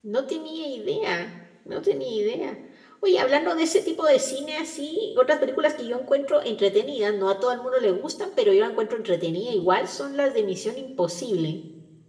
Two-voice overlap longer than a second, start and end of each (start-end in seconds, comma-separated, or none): none